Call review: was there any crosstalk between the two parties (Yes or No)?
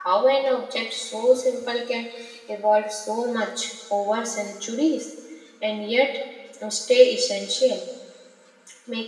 No